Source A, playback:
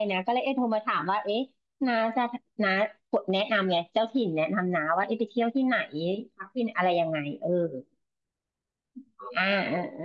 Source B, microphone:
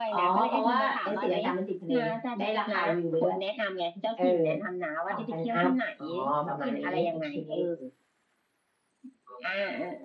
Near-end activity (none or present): present